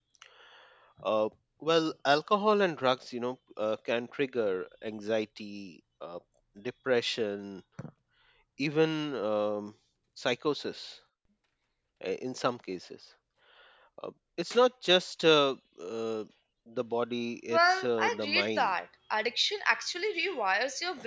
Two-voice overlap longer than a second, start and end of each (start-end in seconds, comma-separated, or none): 17.5-18.7